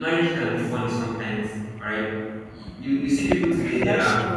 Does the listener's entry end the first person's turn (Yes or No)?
No